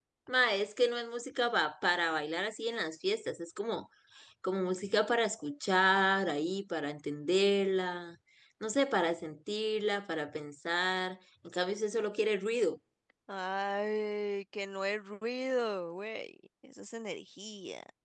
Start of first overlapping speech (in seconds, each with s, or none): none